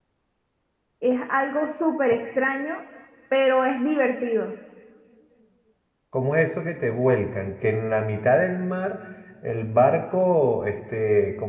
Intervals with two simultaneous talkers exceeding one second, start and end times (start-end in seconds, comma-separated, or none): none